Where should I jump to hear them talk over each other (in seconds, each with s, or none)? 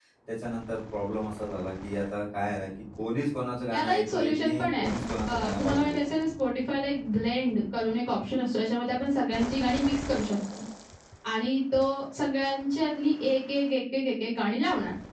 3.7 s